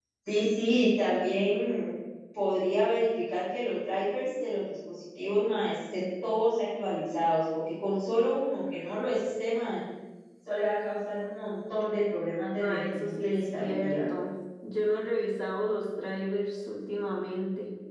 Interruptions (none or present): present